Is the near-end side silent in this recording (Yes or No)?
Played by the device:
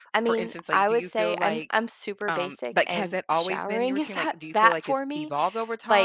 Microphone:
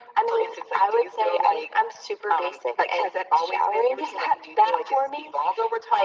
Yes